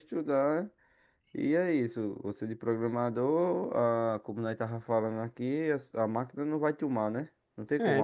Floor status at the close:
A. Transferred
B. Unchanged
A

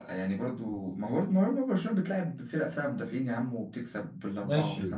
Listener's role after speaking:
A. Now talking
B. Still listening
A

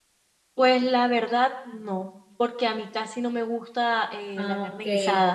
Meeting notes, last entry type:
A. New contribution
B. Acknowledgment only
B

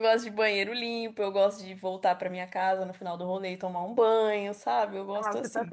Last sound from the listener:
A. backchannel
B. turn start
B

